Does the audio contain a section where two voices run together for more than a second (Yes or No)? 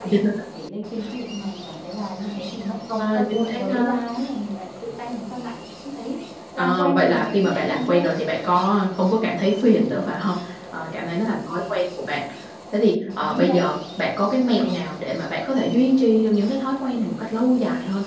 Yes